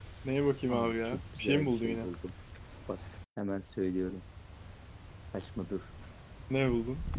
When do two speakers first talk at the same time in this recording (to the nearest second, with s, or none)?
1 s